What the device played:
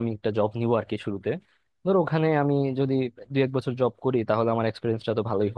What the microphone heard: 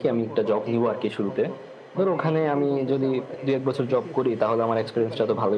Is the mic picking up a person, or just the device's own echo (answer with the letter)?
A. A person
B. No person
A